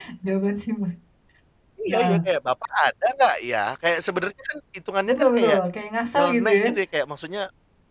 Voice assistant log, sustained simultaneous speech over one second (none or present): none